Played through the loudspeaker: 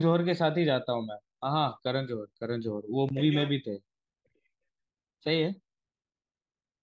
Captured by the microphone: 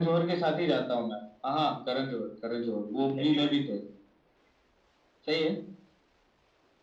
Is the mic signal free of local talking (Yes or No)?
Yes